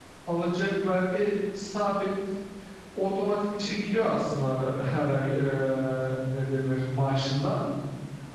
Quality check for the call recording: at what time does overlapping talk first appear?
none

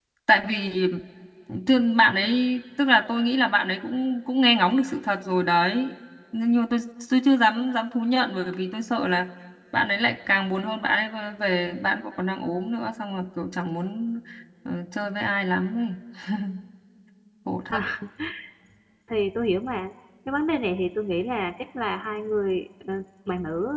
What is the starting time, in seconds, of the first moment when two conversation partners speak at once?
none

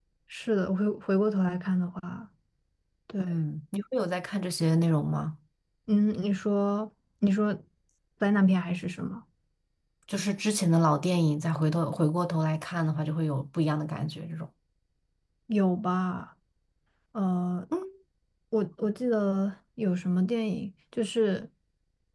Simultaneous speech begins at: none

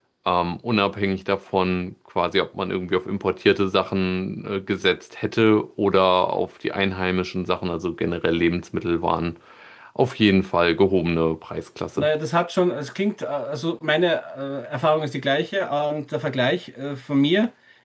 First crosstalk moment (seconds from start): none

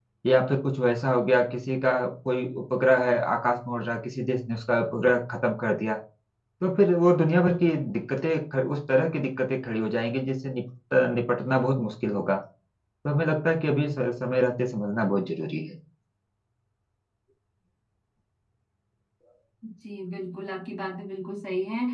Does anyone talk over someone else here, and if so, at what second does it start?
none

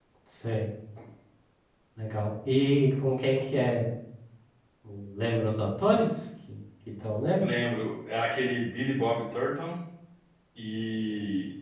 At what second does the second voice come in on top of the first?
none

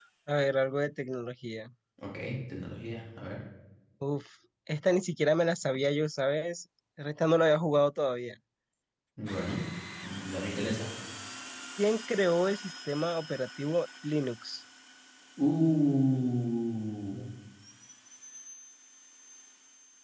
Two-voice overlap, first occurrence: none

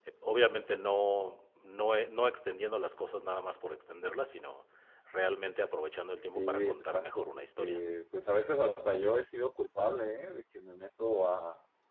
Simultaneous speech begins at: 6 s

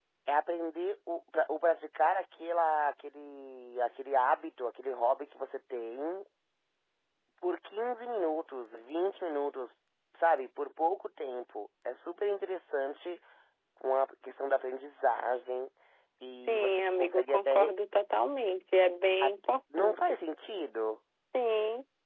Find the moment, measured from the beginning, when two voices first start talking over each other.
16 s

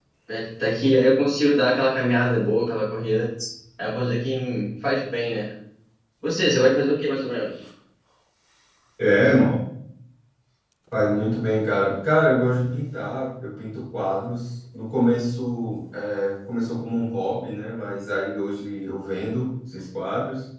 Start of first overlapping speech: none

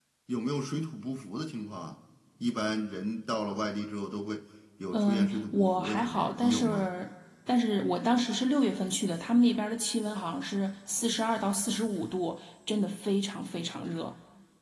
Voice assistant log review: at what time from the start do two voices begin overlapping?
5 s

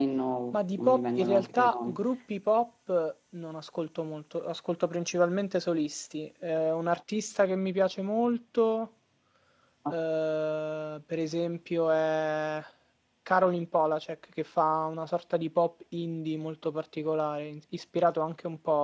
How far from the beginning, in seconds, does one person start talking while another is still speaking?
1 s

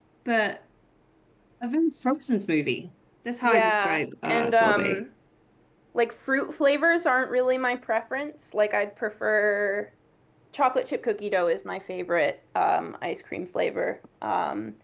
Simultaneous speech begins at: 3 s

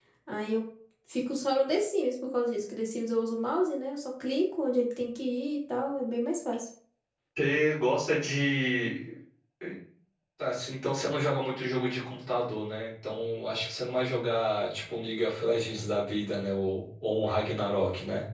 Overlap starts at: none

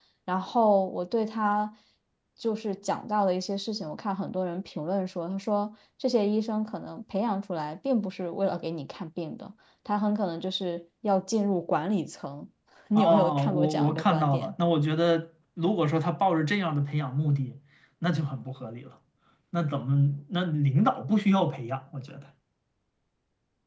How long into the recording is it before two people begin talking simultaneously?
13 s

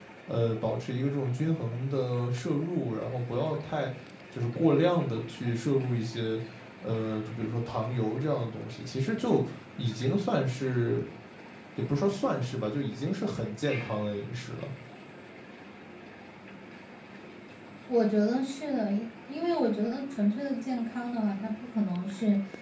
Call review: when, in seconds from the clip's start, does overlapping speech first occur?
none

